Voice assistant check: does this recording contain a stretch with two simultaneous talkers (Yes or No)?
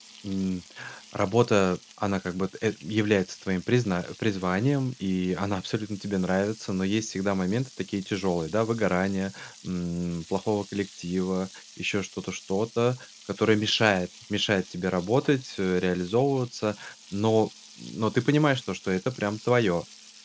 No